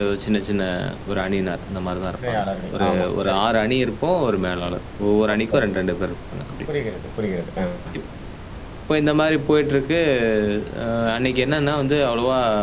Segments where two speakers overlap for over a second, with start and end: 2.2-3.4

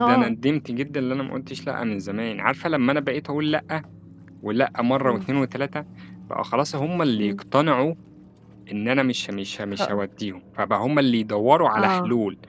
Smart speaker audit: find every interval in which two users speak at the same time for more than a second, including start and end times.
none

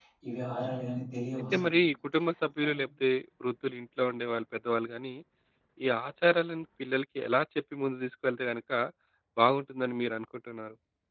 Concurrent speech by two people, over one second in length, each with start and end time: none

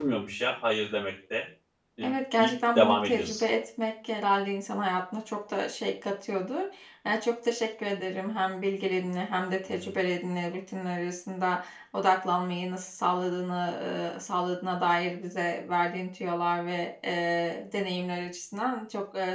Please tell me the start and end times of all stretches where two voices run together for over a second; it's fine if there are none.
2.0-3.4

